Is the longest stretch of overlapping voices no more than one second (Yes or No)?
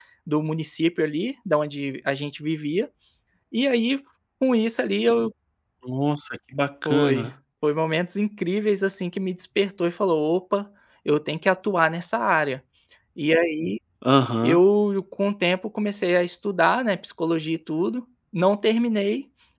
Yes